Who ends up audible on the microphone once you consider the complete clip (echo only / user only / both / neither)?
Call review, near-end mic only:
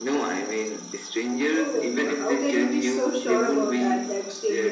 both